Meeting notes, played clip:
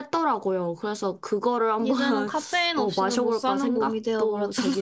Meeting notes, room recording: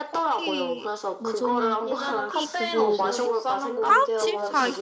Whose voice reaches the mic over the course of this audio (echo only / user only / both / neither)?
both